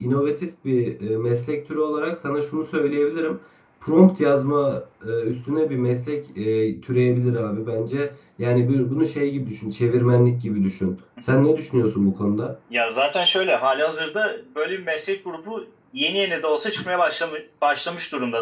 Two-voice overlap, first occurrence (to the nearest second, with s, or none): none